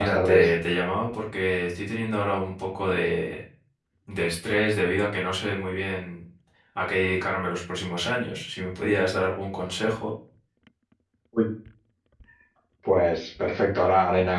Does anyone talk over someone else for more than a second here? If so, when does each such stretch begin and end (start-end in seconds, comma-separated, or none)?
none